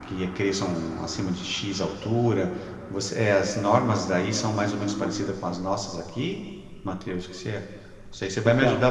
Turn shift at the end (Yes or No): No